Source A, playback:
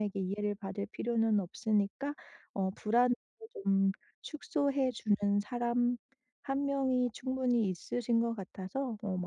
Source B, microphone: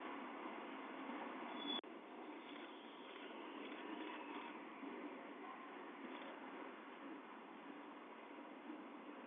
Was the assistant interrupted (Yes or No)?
No